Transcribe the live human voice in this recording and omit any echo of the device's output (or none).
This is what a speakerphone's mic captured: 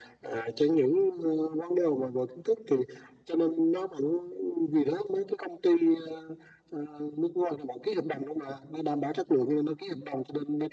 none